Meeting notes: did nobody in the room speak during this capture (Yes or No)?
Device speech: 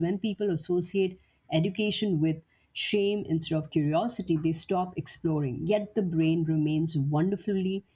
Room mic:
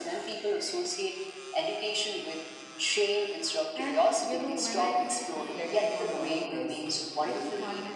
No